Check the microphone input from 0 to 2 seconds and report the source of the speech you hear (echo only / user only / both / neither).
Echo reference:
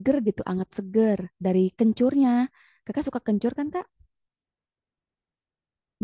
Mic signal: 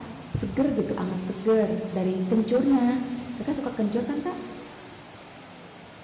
echo only